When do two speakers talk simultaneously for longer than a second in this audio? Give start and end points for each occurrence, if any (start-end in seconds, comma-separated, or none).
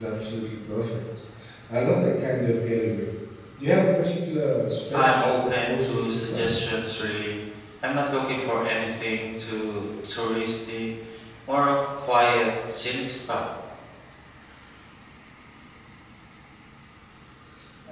4.9-6.4